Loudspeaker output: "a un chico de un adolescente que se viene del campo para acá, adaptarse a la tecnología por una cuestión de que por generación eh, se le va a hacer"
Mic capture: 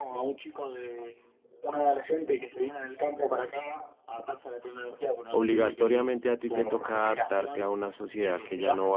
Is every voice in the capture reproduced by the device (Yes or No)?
No